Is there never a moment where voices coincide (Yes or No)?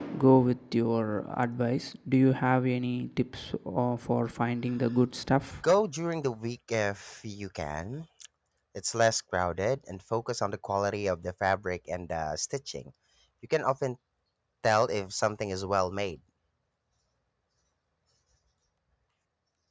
Yes